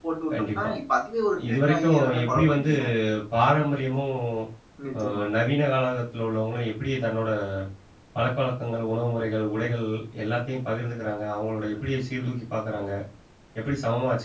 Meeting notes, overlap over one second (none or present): present